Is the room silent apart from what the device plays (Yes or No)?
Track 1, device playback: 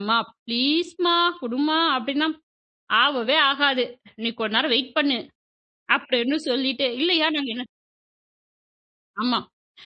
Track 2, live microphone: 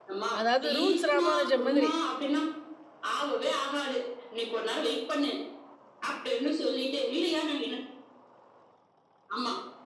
No